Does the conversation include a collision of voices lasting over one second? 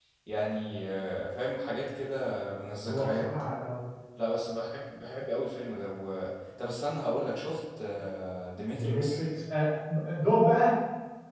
No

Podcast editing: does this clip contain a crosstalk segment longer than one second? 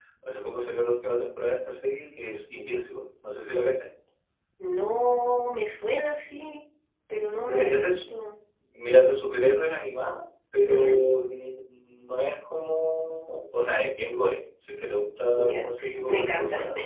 Yes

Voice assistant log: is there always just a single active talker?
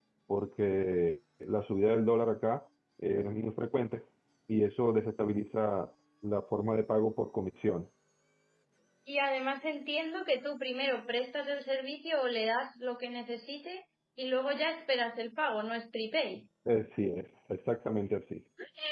Yes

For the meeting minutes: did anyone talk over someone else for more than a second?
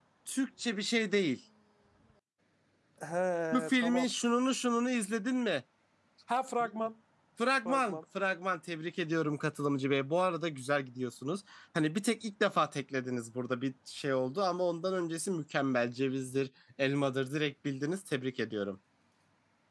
No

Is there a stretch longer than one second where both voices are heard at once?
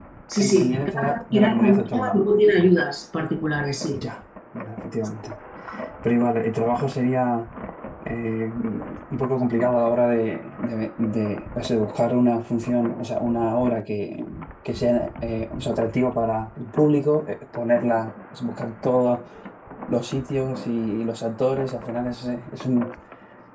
Yes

